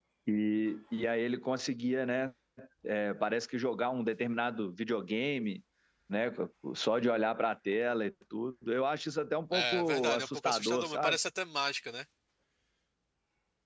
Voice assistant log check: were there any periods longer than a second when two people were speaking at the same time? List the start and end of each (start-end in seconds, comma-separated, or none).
9.5-11.2